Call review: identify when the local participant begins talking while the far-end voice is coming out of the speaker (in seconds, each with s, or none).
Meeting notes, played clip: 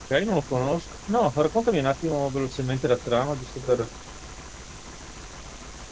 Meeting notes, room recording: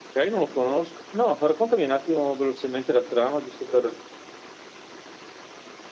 none